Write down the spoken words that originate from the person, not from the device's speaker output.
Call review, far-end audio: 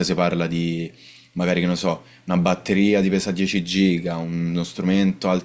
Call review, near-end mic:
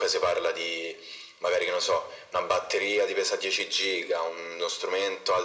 none

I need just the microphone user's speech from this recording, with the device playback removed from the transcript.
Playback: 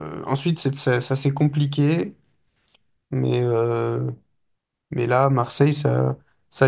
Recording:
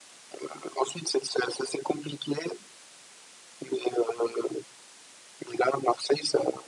none

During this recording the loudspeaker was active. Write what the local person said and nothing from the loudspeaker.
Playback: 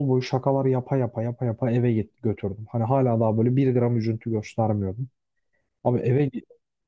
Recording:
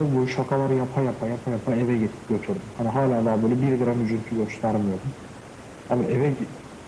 none

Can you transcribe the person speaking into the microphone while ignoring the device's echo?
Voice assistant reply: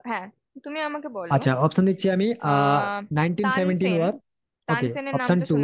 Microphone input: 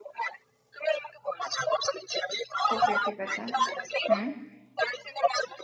ওকে ঠিক আছে হুম

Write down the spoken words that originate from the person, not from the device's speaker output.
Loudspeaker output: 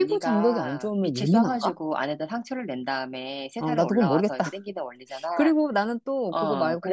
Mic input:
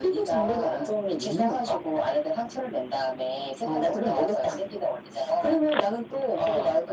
none

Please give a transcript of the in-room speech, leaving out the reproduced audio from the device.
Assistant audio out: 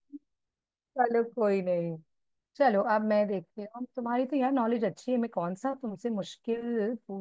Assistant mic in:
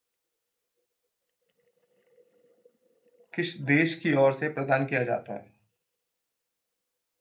किस देश की ओर से प्रदान किया जाता है

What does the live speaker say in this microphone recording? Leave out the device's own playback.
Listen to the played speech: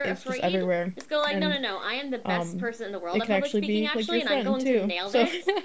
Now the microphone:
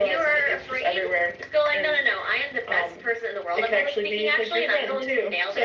none

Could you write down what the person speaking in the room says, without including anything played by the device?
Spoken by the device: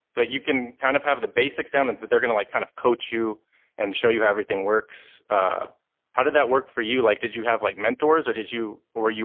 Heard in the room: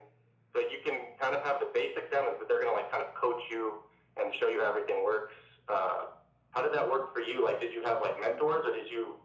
none

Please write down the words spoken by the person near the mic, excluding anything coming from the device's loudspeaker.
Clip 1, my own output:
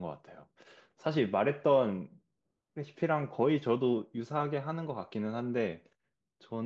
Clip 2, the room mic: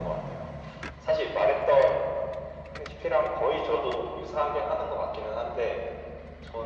none

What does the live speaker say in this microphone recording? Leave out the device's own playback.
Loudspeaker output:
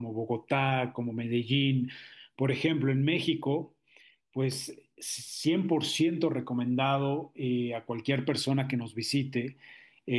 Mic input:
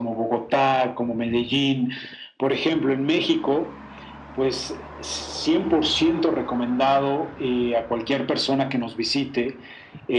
none

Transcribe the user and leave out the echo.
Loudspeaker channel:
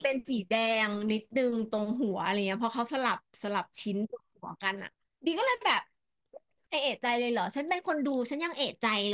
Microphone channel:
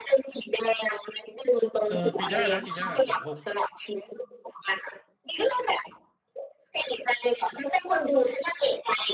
เออปีหน้านะปีหน้าสองหก

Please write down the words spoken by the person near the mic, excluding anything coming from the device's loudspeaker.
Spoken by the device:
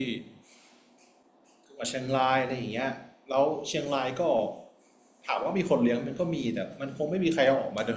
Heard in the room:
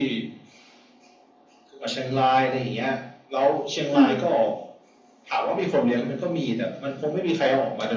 ำอืม

